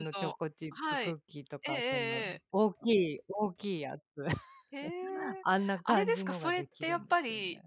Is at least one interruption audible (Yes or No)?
Yes